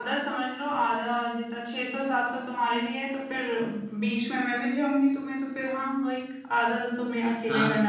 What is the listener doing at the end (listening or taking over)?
taking over